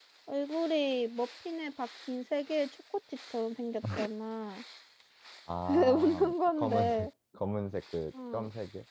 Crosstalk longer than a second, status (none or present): present